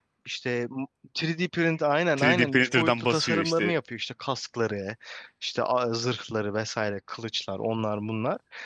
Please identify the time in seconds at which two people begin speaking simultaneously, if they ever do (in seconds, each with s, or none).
2.2 s